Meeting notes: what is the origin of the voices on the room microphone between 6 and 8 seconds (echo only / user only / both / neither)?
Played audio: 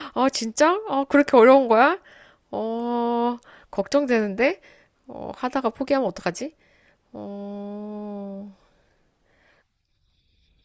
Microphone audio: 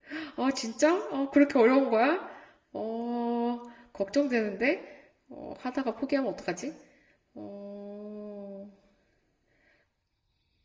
echo only